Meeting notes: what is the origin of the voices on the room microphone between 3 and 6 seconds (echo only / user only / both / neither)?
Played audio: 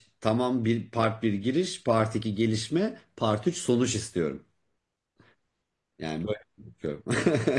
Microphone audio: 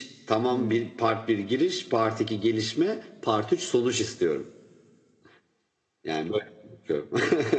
echo only